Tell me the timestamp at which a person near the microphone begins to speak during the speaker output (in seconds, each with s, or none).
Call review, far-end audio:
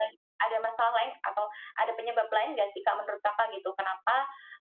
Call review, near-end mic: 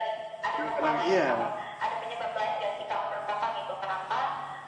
0.5 s